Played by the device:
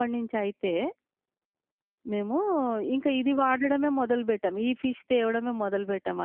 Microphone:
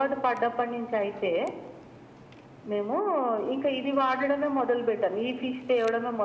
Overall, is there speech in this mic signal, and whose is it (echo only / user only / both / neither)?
echo only